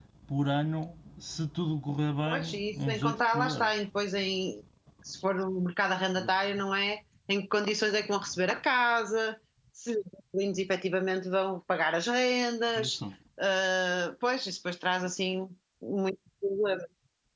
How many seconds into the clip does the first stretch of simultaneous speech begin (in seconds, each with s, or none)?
2.3 s